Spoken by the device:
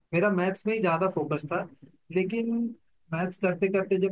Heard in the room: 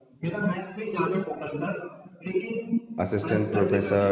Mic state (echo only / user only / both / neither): both